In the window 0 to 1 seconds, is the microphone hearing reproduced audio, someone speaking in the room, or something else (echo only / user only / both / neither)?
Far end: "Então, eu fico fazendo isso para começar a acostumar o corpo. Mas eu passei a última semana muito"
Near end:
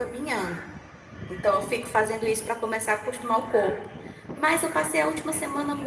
echo only